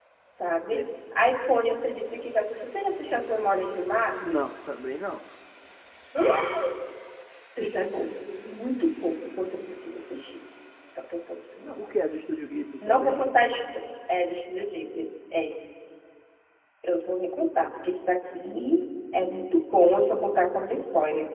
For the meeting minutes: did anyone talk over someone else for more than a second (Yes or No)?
No